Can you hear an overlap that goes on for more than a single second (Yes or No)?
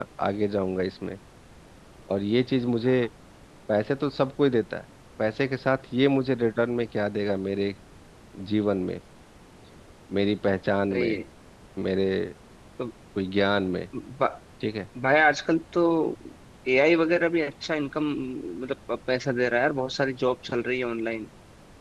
No